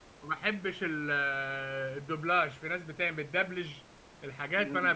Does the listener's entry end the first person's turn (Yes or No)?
Yes